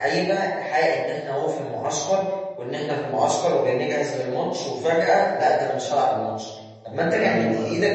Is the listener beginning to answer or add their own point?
No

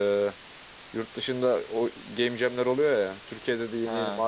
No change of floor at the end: Yes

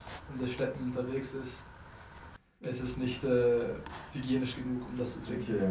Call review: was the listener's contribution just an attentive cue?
Yes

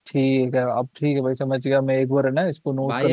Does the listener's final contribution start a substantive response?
Yes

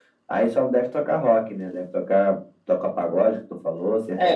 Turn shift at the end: Yes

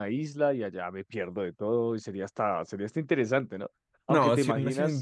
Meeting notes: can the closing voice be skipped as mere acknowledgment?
No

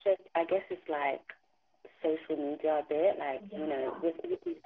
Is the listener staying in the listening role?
Yes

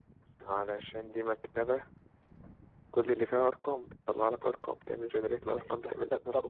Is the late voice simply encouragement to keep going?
No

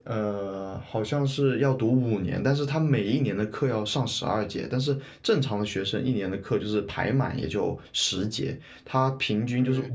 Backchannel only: Yes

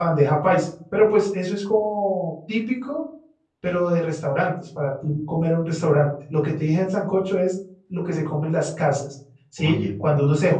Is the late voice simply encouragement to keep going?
Yes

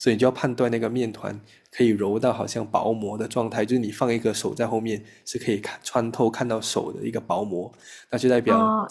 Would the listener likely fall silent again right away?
No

